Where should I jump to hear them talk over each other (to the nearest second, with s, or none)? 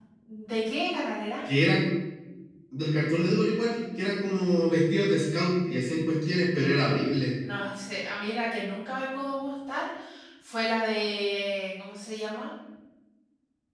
none